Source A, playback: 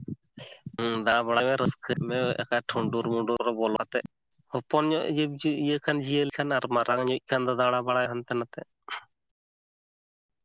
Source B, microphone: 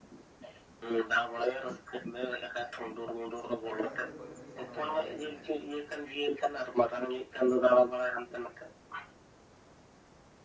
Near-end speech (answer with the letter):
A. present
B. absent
A